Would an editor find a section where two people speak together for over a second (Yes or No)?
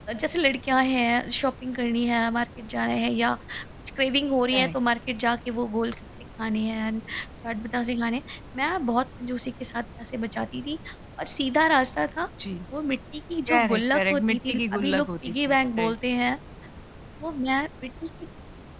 Yes